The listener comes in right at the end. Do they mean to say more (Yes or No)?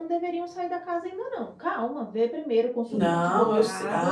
Yes